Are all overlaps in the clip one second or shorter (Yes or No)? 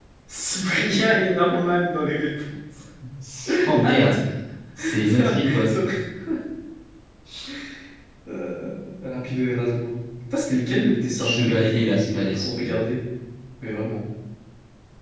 No